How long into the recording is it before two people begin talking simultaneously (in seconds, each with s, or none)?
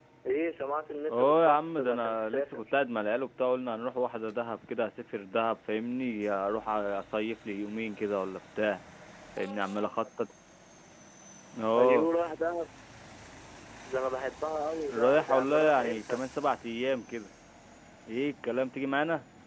1.1 s